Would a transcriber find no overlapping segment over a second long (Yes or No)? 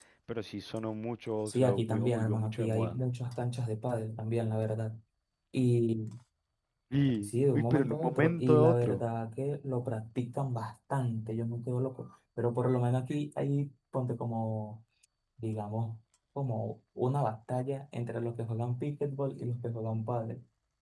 No